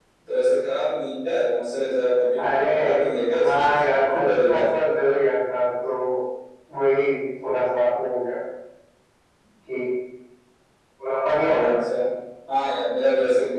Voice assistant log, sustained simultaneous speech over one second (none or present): present